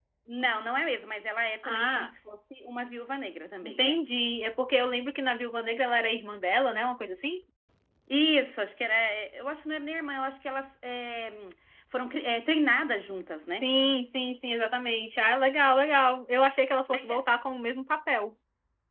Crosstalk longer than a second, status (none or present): none